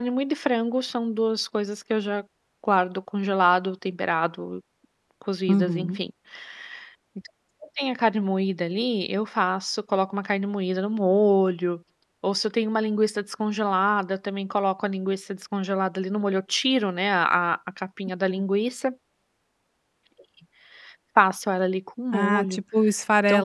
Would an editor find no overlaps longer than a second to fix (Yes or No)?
Yes